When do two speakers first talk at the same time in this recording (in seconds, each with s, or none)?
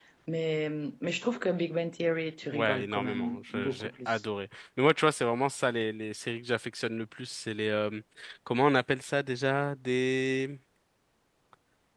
2.5 s